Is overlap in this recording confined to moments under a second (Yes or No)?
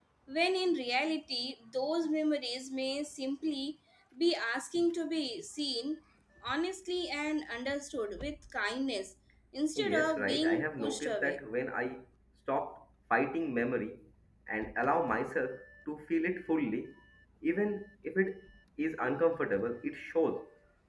No